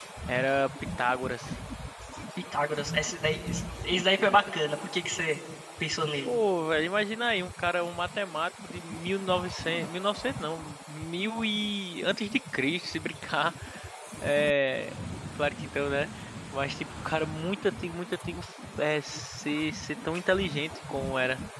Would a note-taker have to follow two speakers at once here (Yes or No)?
No